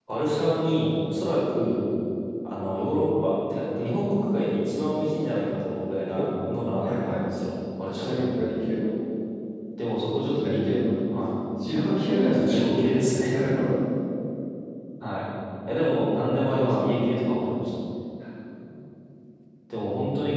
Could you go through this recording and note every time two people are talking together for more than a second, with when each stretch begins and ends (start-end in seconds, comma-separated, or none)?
none